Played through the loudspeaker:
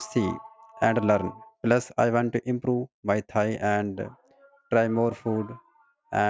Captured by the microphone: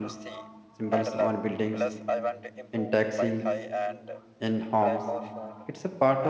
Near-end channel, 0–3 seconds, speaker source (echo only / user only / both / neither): both